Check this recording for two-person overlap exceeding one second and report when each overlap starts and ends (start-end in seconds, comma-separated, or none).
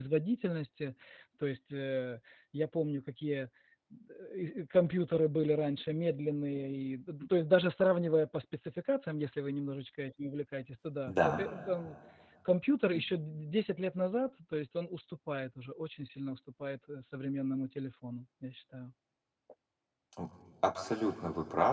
none